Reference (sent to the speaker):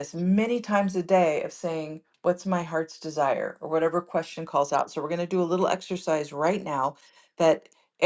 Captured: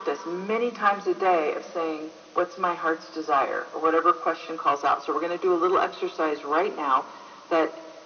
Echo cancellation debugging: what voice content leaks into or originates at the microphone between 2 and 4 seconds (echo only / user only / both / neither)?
echo only